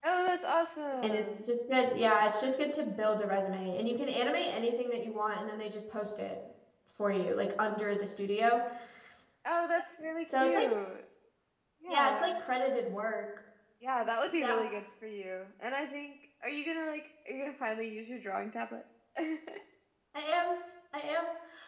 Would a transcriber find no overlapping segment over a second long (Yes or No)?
Yes